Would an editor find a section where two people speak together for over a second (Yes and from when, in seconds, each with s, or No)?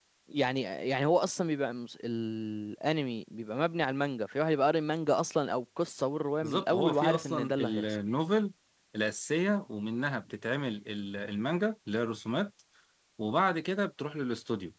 Yes, from 6.4 s